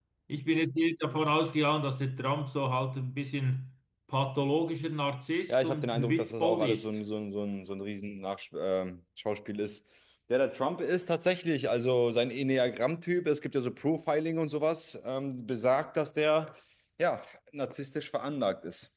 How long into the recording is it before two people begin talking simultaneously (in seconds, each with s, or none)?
5.5 s